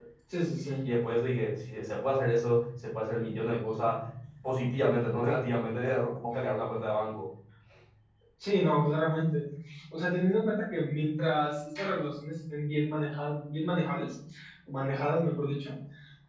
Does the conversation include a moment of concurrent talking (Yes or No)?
No